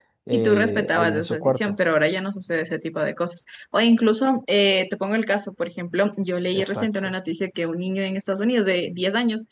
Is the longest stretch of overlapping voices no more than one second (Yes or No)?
No